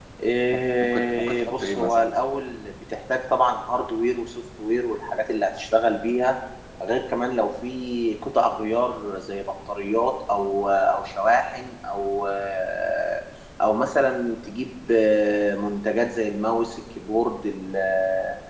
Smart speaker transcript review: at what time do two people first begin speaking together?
0.5 s

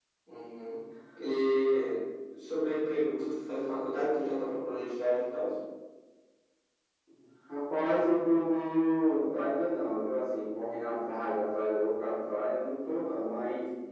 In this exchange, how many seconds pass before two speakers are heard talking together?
none

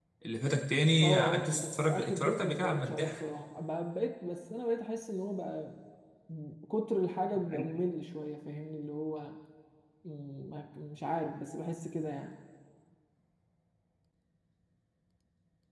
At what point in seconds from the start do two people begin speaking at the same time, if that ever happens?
1.0 s

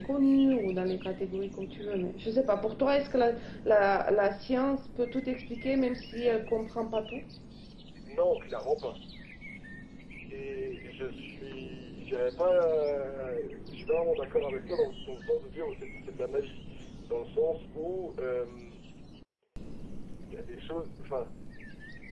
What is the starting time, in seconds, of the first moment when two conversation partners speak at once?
none

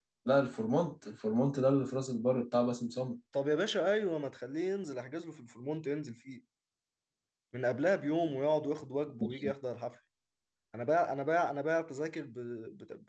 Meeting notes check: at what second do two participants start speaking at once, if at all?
none

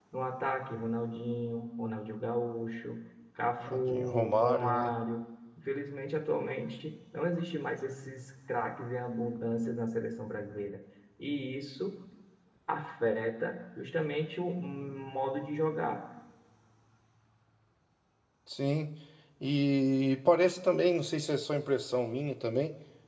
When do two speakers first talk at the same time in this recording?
3.6 s

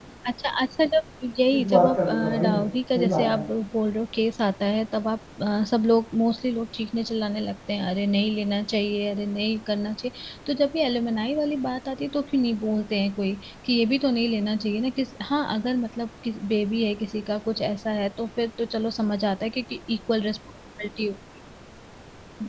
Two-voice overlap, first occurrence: 1.5 s

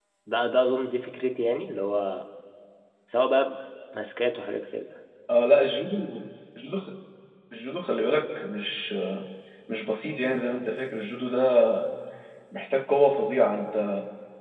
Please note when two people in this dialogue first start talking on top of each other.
none

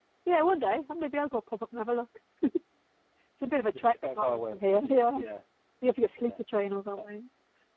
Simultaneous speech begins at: 3.7 s

